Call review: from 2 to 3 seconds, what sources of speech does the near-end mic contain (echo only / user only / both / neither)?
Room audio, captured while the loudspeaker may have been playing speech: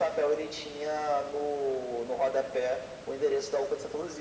echo only